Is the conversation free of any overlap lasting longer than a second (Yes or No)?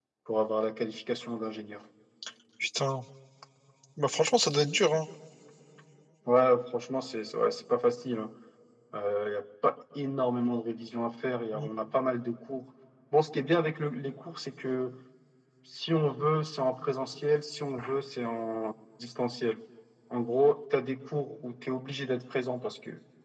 Yes